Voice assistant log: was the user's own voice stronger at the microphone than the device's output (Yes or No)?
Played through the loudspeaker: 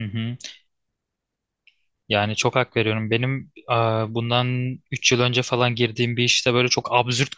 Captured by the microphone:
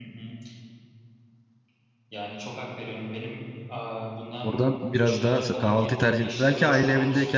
Yes